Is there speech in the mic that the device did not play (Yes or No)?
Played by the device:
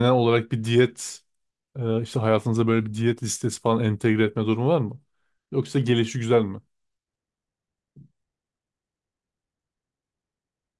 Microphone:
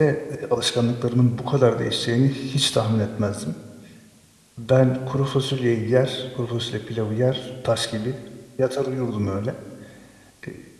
Yes